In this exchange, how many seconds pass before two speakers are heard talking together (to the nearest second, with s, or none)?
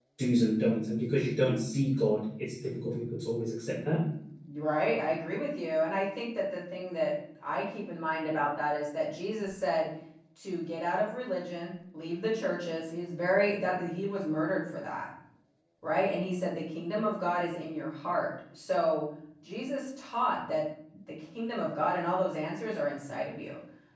none